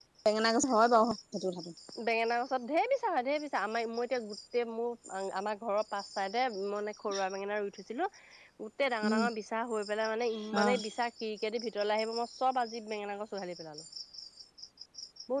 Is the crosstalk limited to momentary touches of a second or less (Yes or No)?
Yes